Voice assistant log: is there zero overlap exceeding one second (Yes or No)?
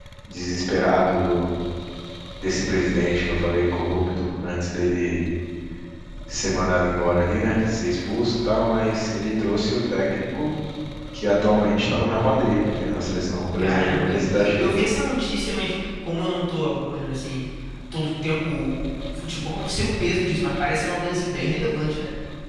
No